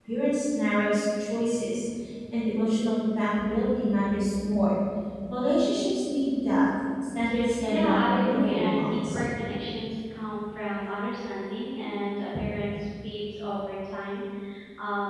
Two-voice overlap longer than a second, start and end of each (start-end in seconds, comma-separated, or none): 7.7-9.2